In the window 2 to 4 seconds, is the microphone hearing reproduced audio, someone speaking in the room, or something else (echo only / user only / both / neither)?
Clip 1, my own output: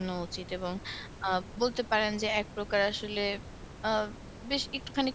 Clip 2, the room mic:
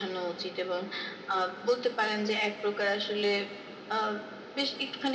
echo only